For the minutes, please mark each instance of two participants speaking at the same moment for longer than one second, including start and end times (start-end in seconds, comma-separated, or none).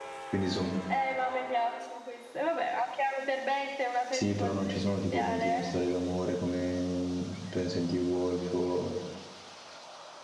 4.1-5.7